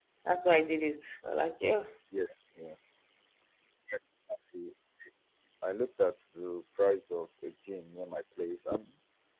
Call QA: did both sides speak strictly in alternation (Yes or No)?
Yes